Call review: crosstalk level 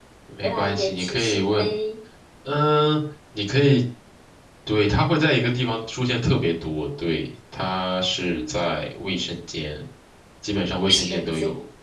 present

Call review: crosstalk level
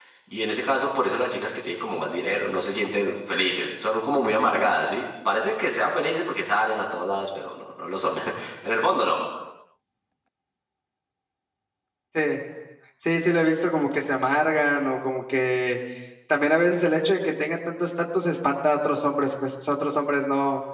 none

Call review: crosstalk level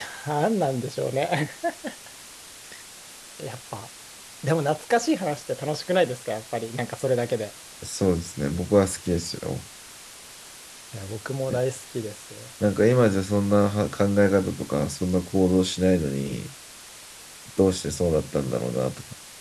none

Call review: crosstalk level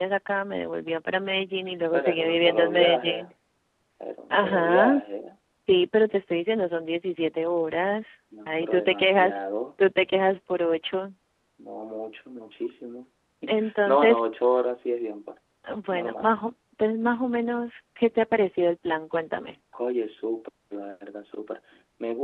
present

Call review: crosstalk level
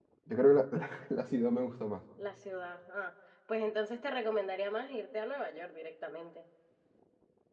none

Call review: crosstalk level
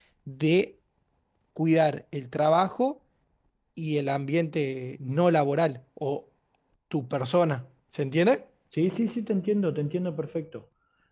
none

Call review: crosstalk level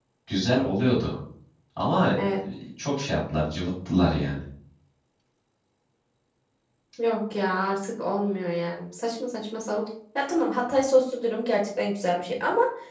none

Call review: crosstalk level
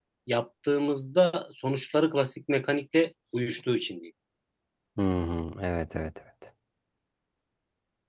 none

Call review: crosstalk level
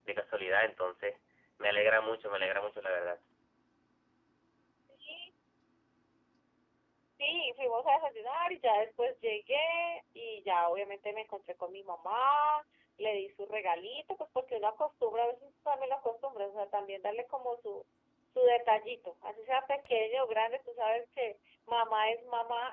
none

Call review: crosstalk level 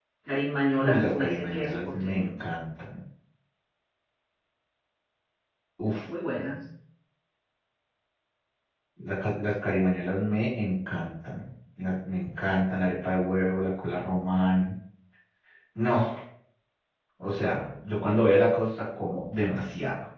present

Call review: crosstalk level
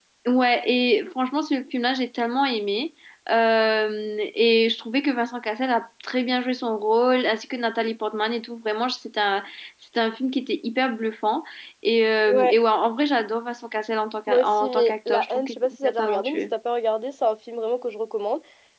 present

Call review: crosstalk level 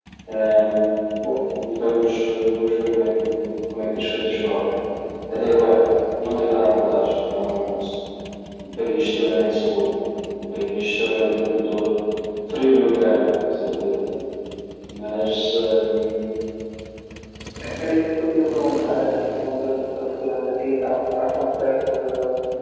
none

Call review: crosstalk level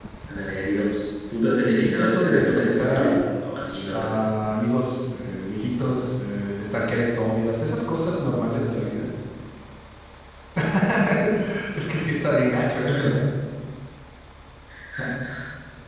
present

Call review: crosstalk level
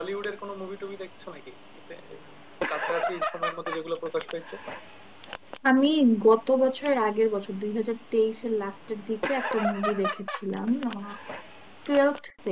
none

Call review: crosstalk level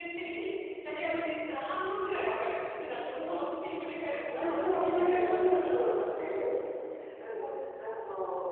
present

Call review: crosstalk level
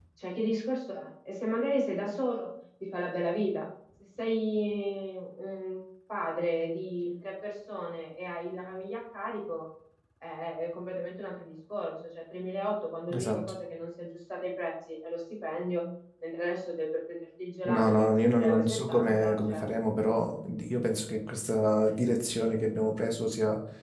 present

